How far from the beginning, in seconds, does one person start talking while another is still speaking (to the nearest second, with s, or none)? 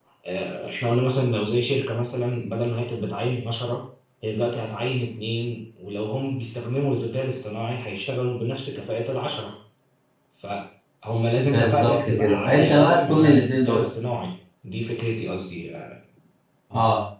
11 s